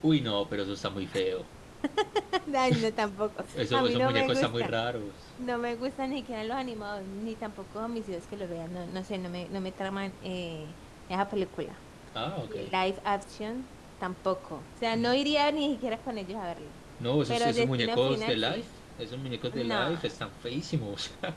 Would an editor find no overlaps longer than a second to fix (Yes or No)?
No